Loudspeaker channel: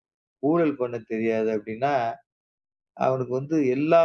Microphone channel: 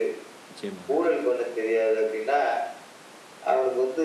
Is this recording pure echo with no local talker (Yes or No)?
No